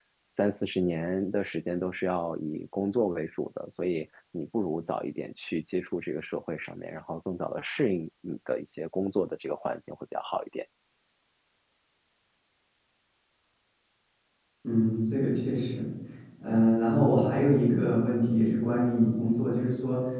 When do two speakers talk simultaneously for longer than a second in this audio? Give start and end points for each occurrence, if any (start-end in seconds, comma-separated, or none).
none